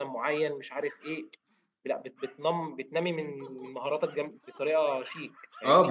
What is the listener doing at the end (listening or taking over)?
taking over